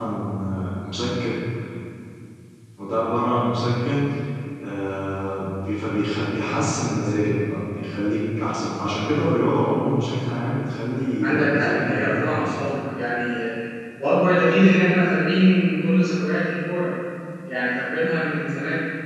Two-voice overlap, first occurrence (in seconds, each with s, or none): 11.2 s